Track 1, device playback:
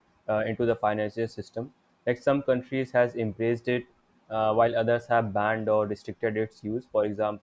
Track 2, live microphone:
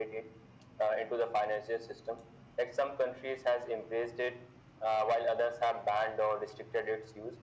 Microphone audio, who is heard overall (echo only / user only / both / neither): echo only